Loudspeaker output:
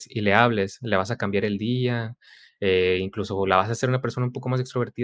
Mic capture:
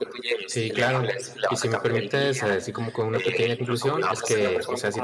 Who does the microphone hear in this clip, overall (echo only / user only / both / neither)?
both